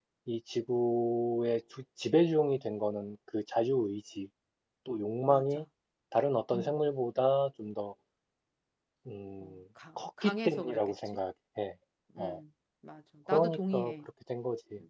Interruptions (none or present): present